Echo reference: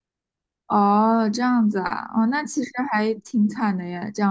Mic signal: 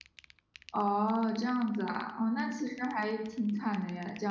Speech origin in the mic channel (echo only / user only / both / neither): echo only